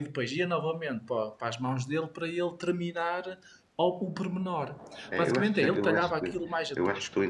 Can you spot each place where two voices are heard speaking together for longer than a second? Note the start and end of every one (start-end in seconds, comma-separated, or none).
5.2-6.4